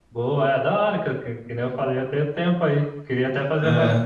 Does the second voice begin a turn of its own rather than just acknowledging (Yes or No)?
No